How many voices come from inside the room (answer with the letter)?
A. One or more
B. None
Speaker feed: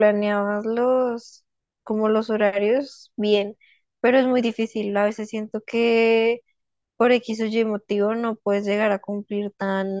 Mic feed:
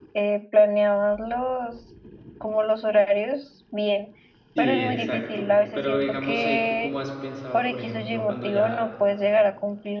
A